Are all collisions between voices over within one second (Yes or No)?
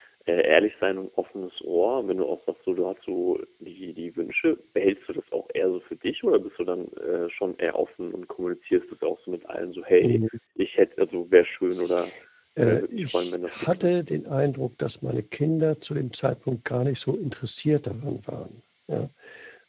No